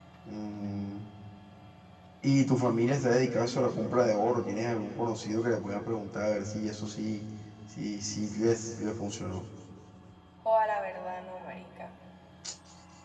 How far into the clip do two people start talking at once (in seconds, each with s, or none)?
none